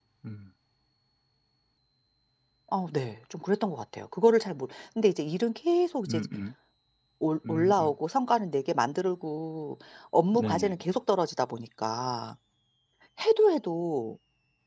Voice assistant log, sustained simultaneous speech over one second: none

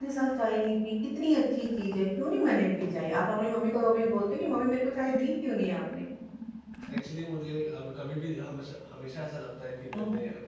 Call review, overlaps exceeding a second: none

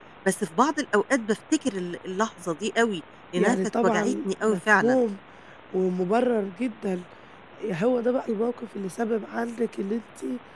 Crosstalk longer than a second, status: present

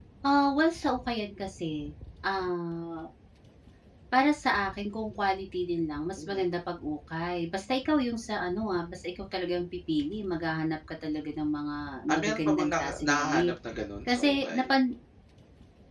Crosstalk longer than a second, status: present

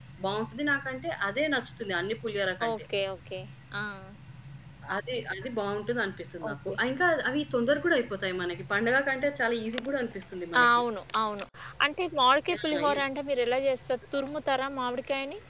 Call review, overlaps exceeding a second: none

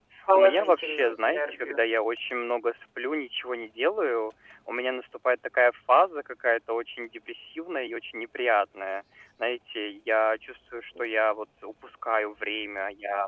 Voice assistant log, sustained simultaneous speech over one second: present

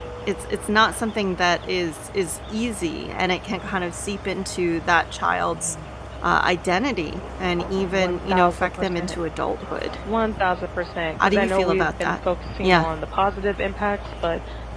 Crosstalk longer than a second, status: present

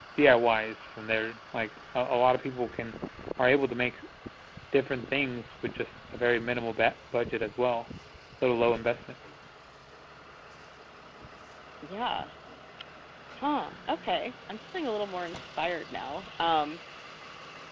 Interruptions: none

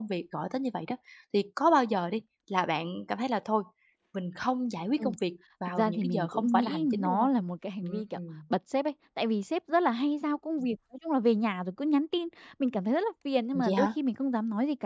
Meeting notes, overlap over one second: present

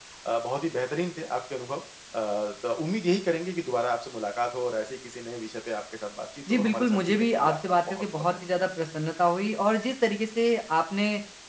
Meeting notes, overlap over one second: present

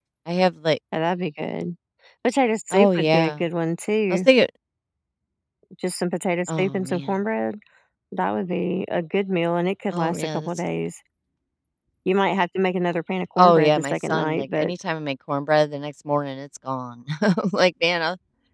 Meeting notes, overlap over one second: present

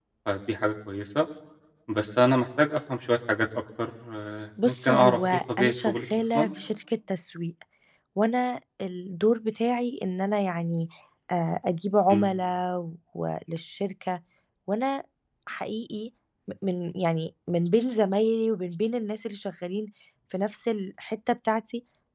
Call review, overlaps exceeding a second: present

